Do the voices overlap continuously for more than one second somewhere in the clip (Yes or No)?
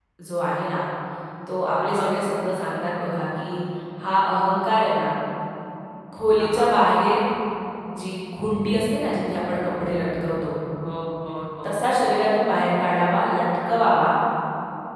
No